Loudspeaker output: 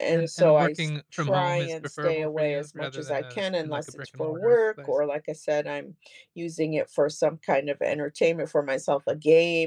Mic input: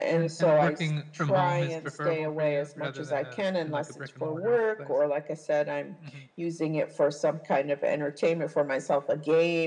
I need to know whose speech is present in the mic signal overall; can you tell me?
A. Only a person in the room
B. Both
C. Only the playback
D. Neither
B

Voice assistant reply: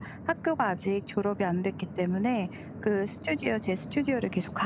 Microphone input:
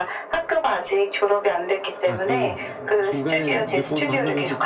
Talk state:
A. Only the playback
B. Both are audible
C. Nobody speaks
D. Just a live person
B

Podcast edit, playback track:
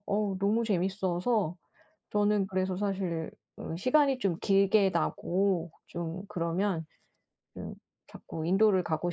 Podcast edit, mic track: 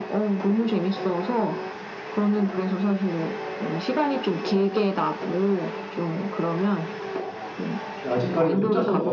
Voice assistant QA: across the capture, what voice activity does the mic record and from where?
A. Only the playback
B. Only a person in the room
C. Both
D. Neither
C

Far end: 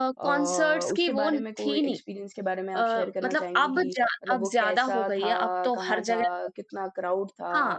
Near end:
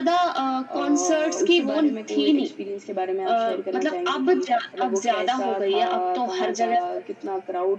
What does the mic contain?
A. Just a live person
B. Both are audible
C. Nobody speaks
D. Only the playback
D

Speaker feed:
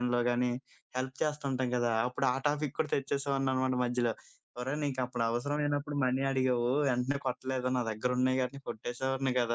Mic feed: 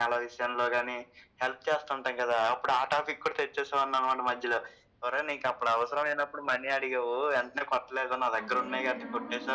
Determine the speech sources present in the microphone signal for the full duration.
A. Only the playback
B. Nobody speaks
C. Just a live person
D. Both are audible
D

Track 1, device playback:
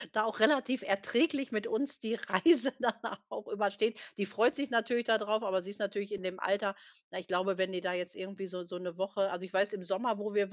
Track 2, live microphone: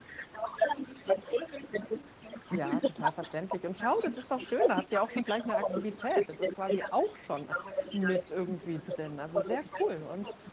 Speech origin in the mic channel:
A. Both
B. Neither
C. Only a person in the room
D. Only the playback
A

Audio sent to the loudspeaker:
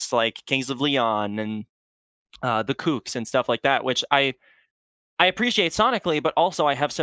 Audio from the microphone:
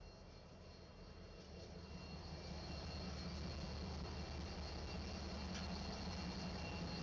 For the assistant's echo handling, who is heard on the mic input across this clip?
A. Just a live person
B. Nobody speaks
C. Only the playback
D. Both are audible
B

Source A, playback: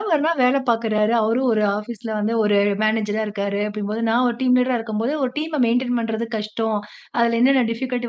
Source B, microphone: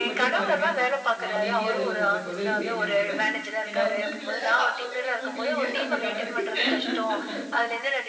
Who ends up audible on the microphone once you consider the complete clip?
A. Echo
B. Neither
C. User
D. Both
D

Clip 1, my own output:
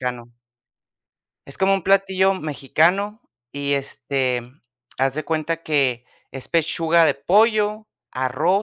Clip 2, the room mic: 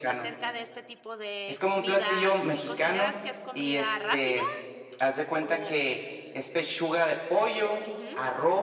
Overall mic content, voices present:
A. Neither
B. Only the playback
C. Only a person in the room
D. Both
D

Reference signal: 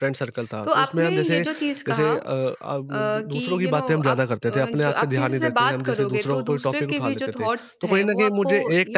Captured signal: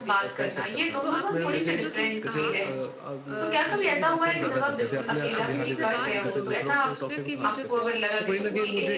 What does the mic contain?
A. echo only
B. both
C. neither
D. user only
B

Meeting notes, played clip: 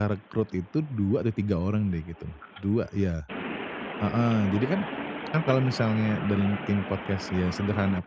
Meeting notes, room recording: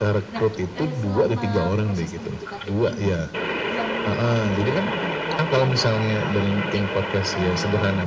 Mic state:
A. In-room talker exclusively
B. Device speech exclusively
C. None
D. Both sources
D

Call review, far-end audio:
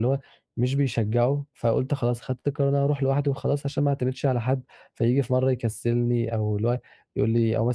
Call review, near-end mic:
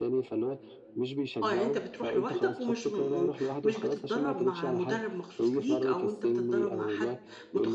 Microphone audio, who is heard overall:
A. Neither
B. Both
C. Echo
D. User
B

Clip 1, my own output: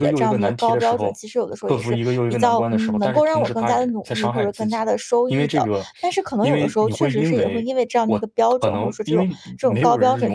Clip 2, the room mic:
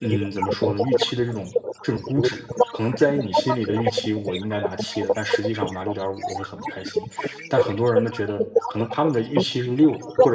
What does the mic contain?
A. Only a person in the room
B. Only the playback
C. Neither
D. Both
D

